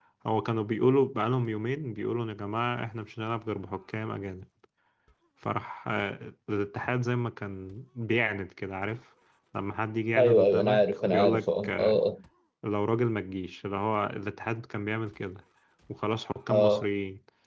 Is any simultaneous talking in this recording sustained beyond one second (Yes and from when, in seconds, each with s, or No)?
Yes, from 10.2 s